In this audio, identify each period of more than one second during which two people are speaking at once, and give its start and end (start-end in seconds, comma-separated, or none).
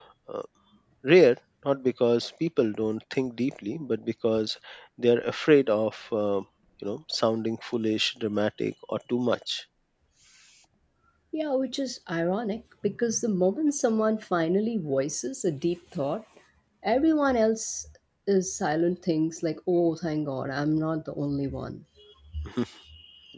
none